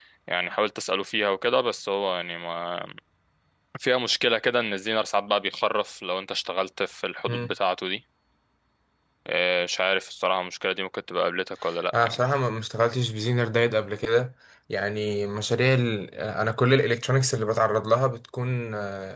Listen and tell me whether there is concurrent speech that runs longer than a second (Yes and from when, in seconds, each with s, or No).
No